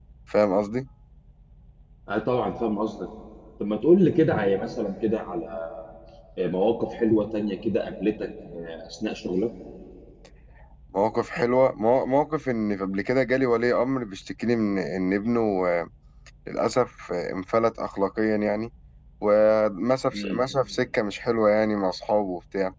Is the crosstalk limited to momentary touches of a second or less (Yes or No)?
Yes